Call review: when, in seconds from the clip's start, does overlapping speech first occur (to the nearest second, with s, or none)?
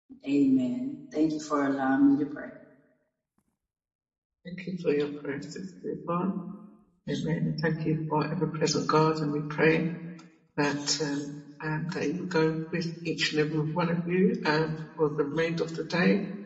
none